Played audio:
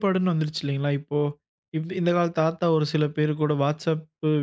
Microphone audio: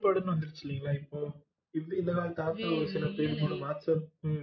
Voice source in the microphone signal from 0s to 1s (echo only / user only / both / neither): echo only